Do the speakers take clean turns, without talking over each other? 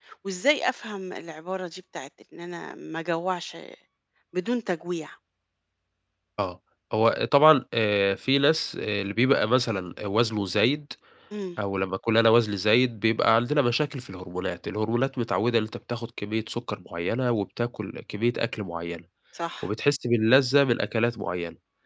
Yes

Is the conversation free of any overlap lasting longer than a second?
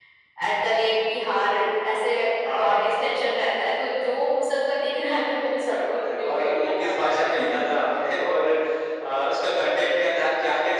No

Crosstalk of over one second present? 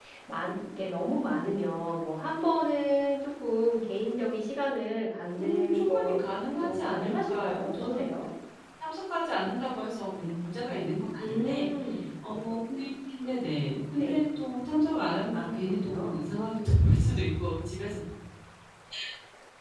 Yes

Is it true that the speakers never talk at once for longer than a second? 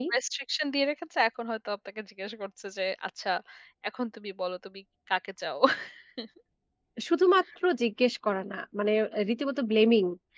Yes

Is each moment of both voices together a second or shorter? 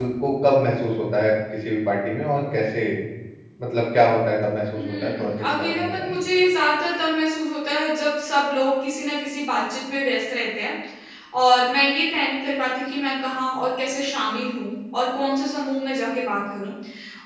No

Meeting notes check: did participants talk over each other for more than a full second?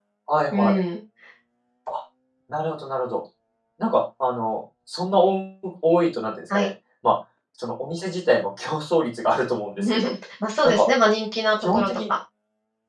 No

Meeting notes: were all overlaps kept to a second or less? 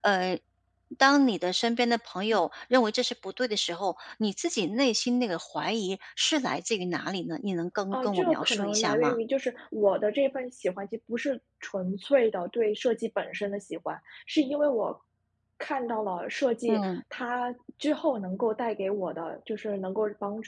No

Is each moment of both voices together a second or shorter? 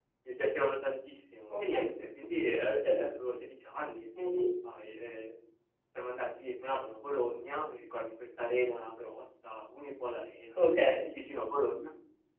Yes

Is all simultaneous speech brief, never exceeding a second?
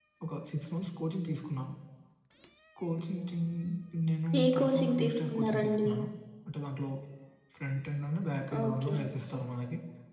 No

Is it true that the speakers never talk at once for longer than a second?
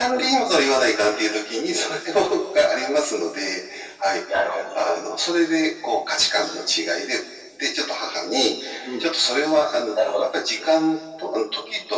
Yes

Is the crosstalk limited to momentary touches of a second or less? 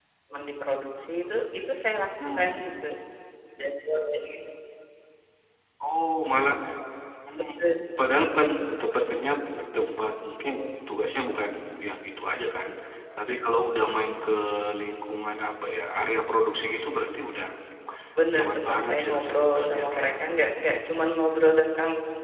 No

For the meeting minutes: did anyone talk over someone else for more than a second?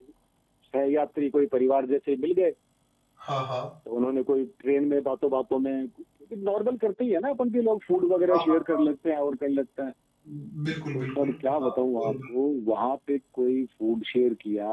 Yes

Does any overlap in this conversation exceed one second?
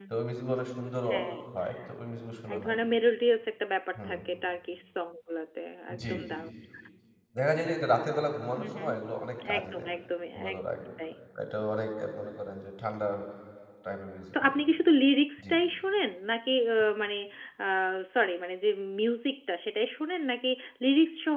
No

